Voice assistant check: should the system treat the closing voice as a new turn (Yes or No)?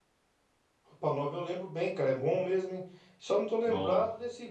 No